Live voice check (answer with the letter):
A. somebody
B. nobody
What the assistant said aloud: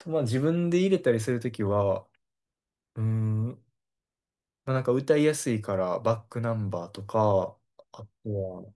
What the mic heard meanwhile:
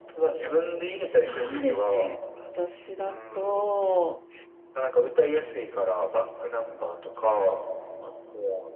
A